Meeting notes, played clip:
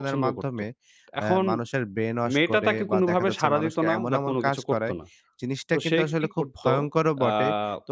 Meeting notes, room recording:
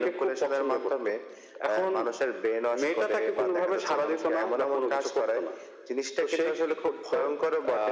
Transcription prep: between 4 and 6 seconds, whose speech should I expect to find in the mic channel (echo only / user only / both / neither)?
echo only